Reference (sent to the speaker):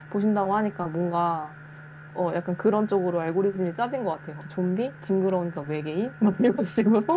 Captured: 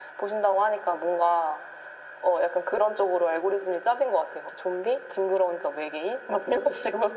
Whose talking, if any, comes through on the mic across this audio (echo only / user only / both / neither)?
echo only